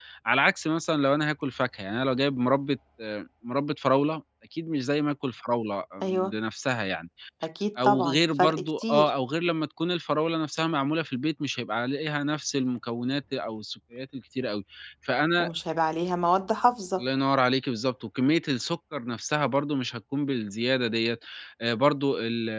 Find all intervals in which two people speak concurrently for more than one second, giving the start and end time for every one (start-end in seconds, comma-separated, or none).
7.8-9.1